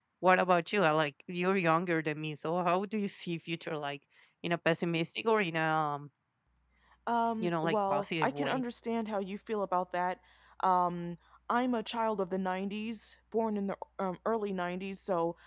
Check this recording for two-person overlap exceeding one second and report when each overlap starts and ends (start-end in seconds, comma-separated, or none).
7.4-8.6